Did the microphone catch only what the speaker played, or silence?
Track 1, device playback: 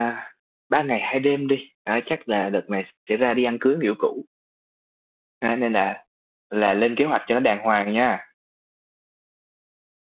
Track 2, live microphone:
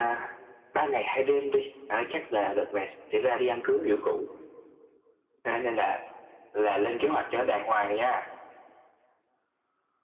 Yes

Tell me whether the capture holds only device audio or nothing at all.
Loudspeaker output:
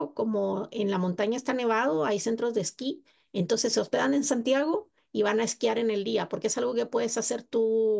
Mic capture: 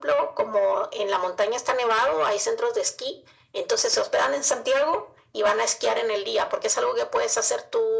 Yes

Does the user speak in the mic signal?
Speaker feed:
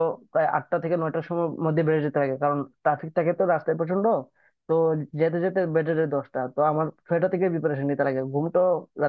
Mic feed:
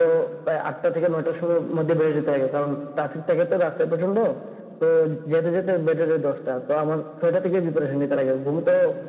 No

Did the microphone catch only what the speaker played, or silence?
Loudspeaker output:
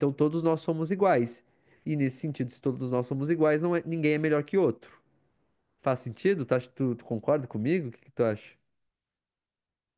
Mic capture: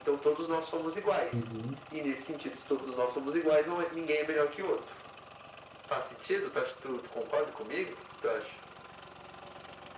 No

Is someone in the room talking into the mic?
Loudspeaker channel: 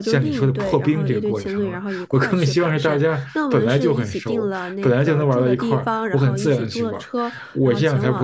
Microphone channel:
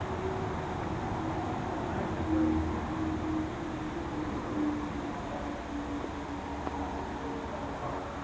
No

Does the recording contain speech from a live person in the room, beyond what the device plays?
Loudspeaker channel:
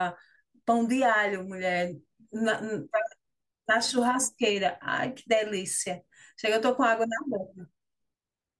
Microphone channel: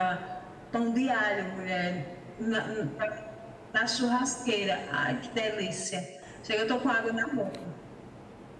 No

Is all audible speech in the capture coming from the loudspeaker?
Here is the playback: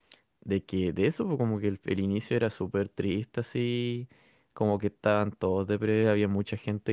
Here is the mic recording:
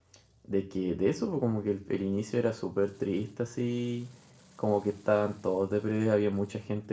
Yes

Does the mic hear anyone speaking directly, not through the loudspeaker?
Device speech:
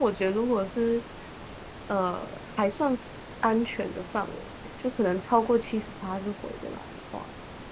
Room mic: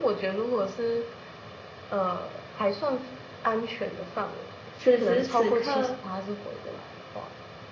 Yes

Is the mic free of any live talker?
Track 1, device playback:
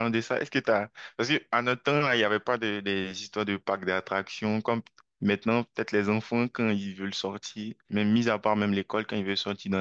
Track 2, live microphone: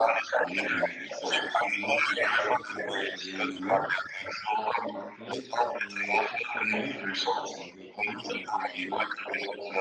No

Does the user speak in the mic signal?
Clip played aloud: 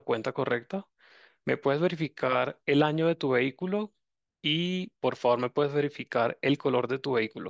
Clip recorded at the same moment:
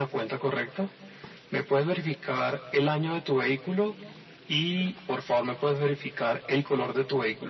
No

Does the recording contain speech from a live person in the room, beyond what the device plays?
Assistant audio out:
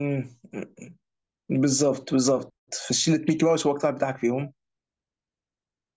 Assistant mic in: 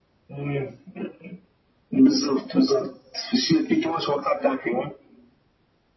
No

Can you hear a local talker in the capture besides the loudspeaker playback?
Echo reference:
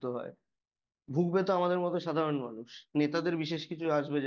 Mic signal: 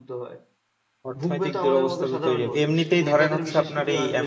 Yes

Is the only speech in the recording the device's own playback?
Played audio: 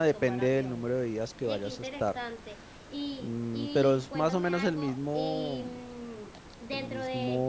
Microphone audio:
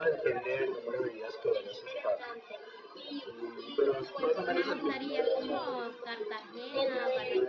No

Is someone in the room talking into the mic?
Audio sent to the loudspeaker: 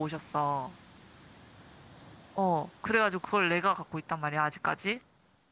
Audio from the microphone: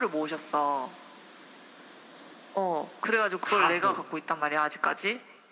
Yes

